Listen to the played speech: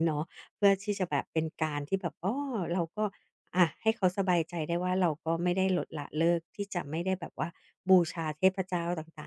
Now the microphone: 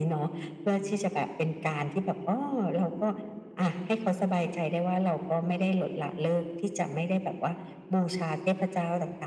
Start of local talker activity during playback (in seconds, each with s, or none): none